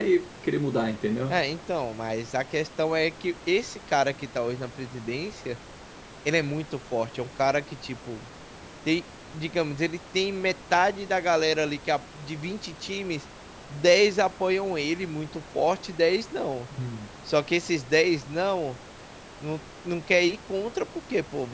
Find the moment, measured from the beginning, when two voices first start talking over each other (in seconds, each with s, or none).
none